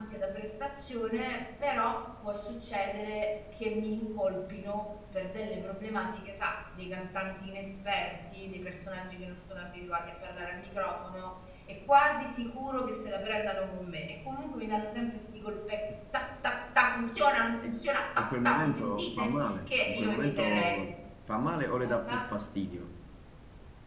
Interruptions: present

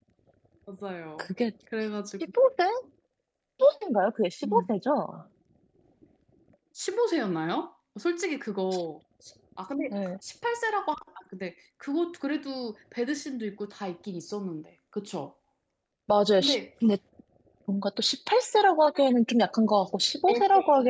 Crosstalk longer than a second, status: none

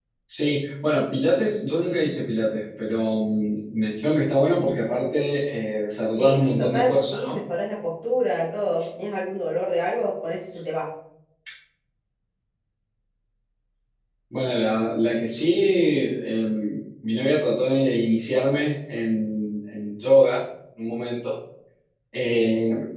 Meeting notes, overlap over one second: present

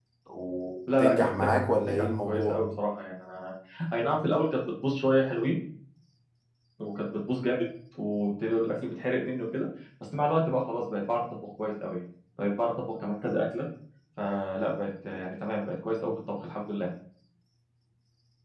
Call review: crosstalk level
present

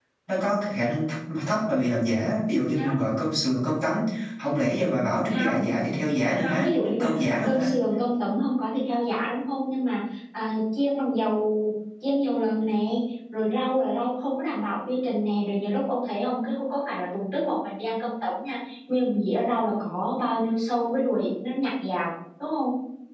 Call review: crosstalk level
present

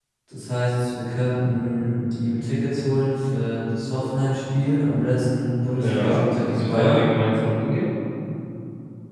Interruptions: present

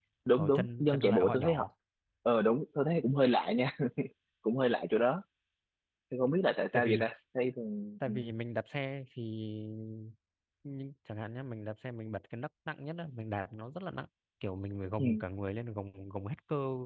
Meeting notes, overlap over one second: present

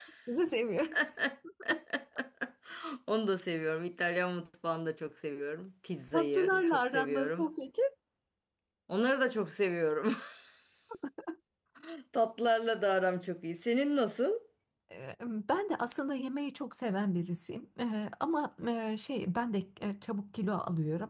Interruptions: present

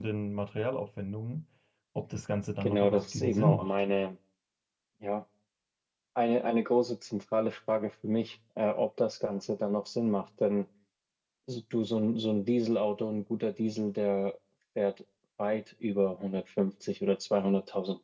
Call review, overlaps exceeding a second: present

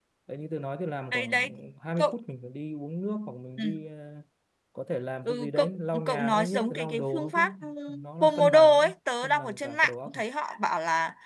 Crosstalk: present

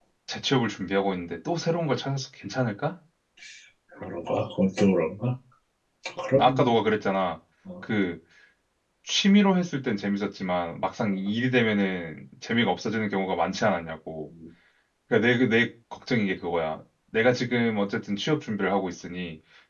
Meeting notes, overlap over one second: none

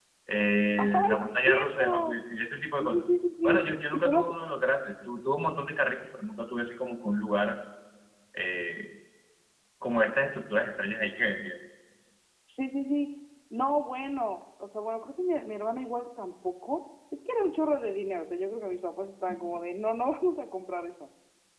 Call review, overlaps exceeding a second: present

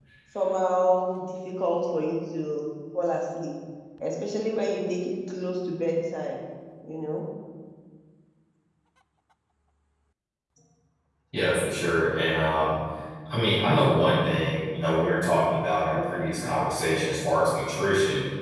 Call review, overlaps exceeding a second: none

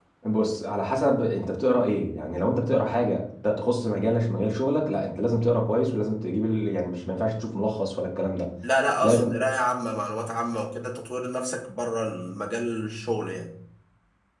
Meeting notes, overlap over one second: none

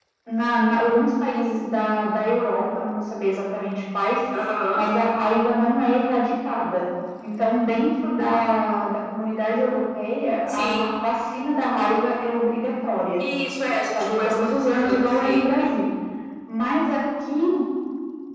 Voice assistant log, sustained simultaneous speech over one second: present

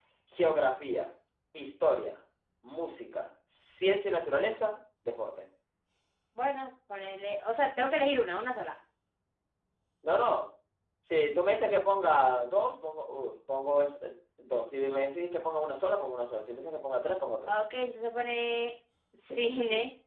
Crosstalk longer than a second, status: none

